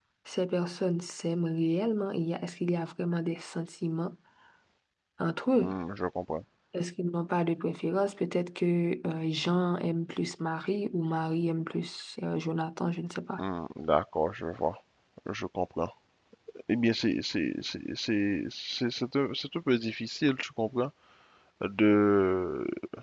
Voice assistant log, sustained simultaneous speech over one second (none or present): none